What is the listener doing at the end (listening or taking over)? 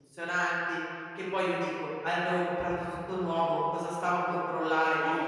taking over